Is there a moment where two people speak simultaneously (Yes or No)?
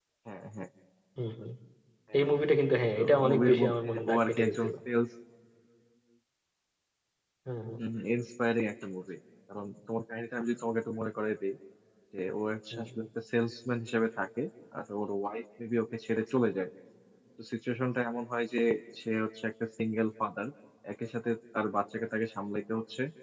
Yes